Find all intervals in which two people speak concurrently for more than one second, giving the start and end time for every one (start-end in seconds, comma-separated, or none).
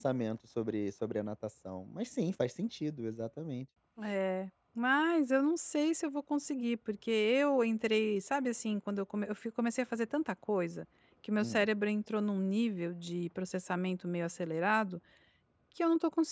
none